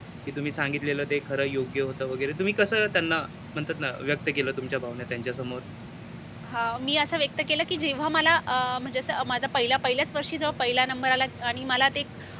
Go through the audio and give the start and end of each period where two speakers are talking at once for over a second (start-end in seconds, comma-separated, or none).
none